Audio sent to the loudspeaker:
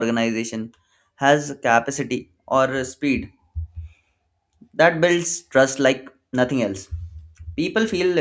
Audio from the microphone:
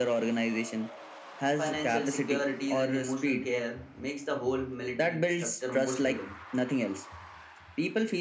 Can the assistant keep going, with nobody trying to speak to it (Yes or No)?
No